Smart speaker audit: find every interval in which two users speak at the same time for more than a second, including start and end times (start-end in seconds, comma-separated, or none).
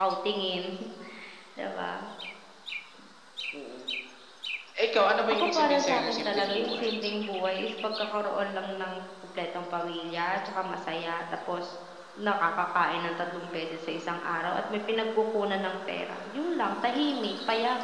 5.3-6.9